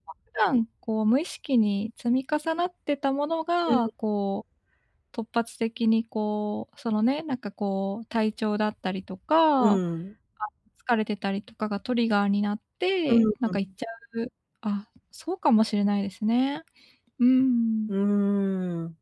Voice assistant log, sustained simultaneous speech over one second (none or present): none